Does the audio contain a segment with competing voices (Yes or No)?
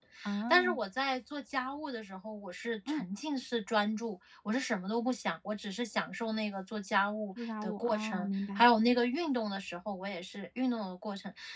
Yes